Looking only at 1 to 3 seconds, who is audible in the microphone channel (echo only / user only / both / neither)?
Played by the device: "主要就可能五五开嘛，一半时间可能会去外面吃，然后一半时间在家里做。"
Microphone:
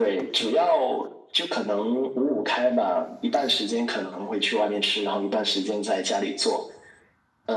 echo only